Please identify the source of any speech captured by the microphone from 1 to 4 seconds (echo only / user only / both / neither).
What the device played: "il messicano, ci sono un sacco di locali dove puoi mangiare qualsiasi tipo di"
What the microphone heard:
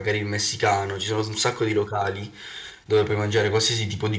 echo only